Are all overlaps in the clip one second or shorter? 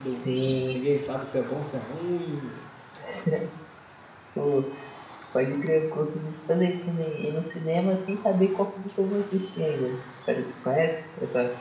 Yes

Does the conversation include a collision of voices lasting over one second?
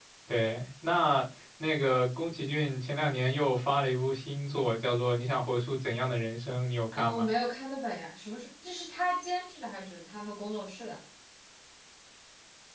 No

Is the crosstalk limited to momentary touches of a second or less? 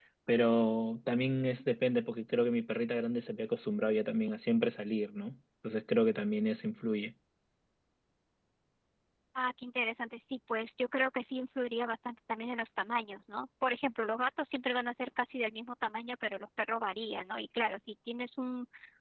Yes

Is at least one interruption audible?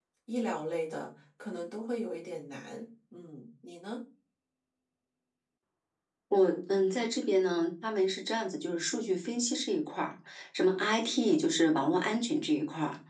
No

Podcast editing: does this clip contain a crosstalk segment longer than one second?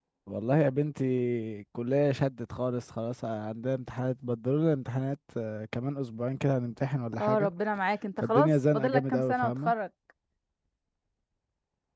Yes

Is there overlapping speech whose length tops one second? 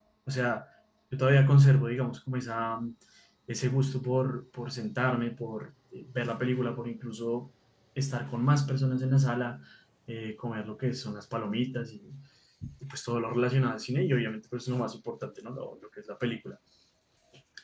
No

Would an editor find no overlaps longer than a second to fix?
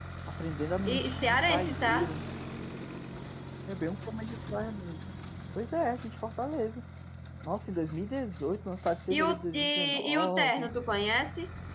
No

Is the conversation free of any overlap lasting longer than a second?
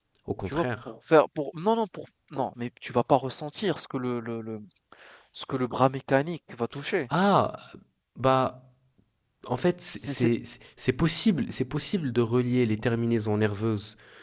Yes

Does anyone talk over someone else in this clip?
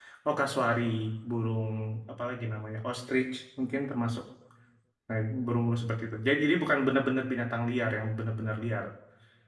No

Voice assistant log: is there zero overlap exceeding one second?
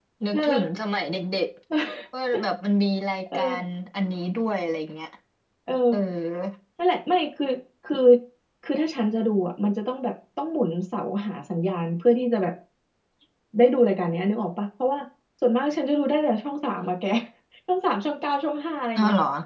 Yes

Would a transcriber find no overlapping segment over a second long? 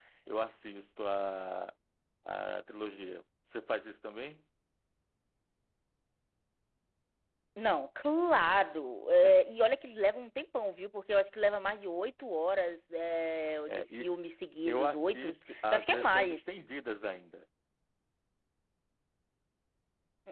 No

